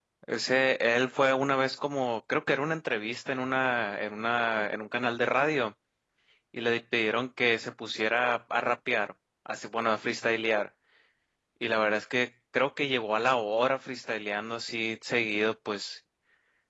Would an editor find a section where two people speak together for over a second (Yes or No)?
No